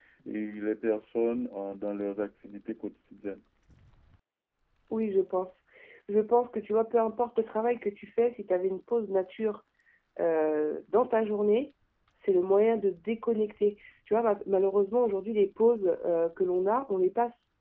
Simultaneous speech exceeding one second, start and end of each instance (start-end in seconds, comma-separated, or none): none